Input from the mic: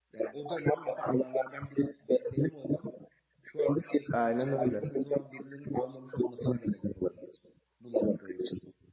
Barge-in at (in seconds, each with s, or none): 4.1 s